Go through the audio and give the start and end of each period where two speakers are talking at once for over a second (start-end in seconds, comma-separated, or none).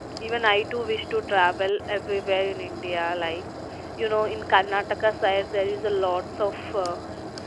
none